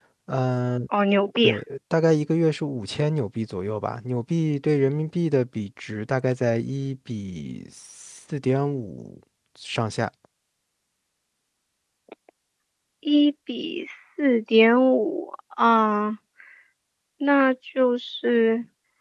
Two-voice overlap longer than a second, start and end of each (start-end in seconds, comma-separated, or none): none